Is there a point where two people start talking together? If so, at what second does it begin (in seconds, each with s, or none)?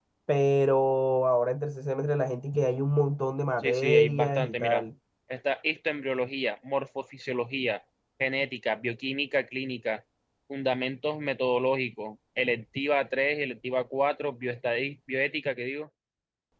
3.6 s